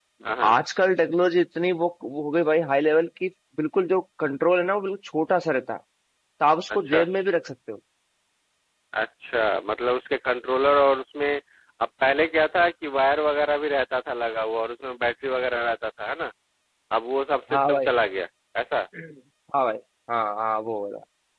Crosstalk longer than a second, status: none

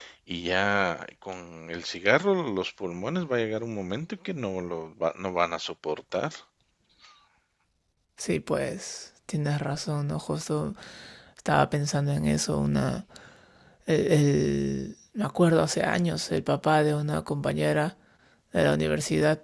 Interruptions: none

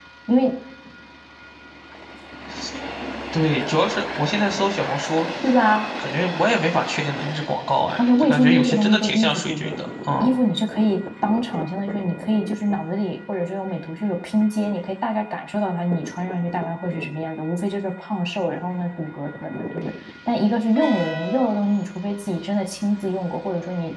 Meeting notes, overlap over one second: present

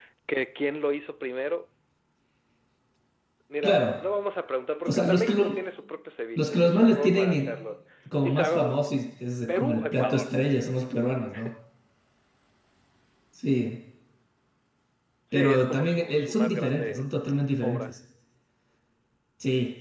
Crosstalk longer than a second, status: present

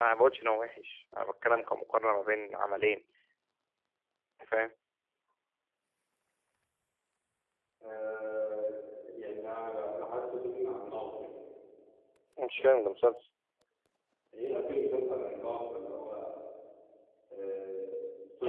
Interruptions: none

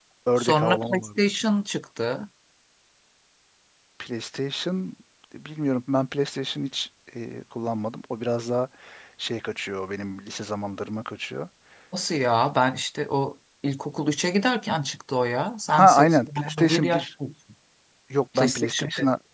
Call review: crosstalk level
present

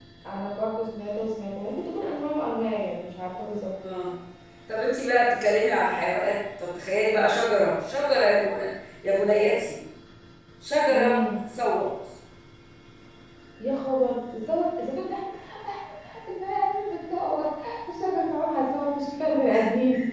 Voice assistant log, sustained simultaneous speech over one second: none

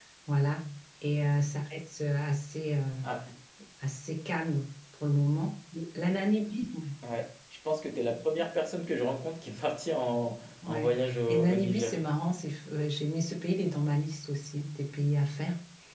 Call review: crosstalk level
present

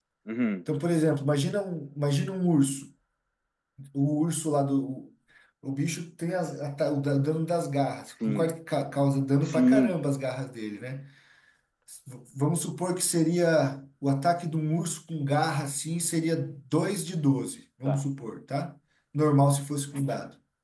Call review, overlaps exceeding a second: none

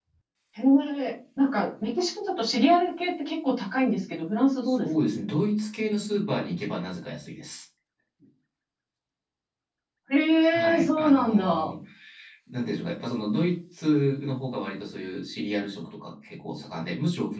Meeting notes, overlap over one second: present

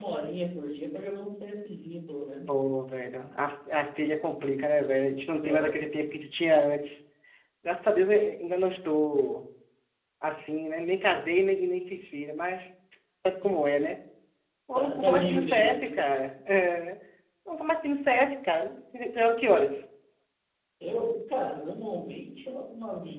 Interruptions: present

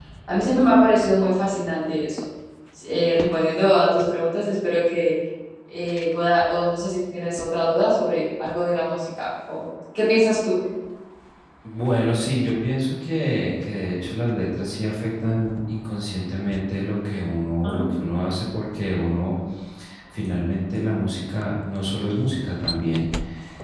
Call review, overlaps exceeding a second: none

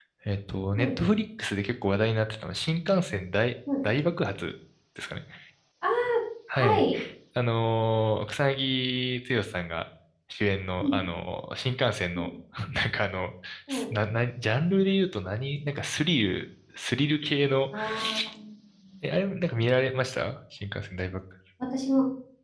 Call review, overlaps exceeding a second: none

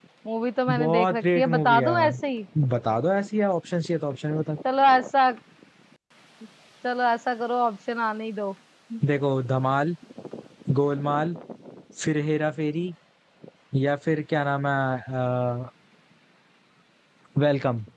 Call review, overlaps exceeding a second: present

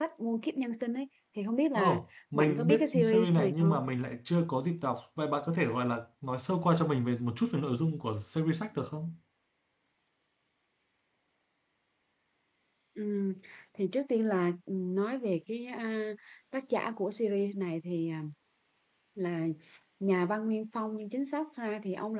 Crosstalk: present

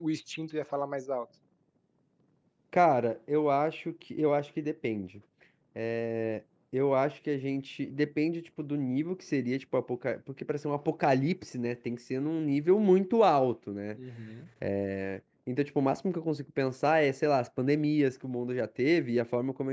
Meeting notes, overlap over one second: none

